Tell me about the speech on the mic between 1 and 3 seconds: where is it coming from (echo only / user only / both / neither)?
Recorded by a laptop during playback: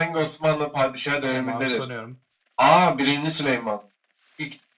both